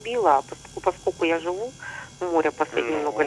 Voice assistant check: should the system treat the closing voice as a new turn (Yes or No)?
No